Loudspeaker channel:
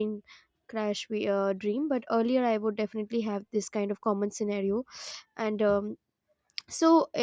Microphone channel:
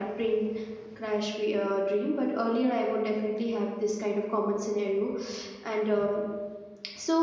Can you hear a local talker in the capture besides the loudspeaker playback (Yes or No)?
No